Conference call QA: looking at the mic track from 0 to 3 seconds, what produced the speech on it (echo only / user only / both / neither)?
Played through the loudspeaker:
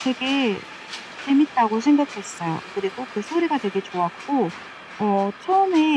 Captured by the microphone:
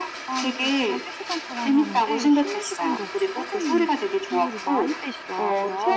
both